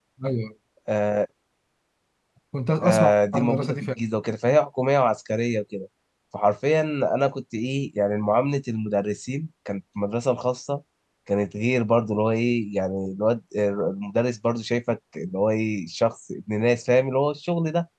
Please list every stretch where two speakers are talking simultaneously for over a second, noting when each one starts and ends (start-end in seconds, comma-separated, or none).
2.8-4.0